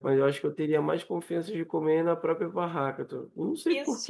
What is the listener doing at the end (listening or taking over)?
taking over